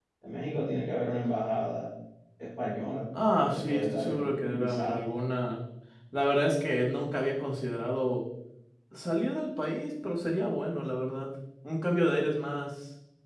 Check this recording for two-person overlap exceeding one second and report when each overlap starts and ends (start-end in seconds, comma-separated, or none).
3.3-5.0